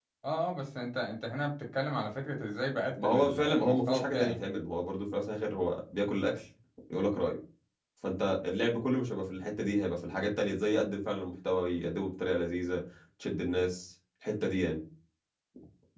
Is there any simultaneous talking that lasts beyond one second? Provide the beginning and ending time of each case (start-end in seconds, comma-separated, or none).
3.0-4.4